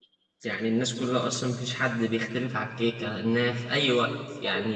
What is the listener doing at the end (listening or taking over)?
listening